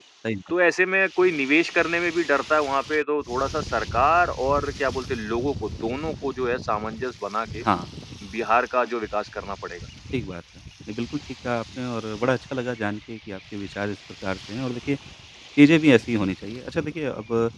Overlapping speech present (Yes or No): No